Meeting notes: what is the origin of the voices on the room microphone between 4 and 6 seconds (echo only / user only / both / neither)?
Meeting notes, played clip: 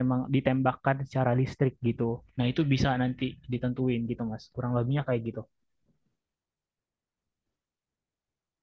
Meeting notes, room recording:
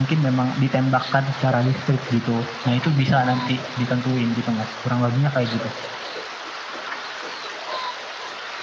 echo only